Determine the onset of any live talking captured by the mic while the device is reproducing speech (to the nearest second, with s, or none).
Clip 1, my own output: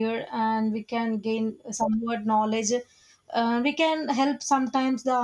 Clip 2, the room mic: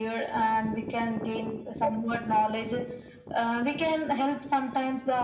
none